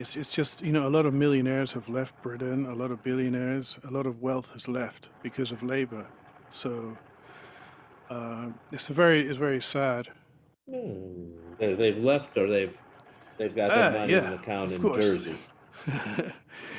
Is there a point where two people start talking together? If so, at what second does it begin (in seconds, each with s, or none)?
13.7 s